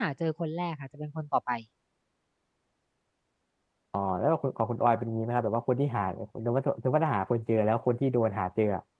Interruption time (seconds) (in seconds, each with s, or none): none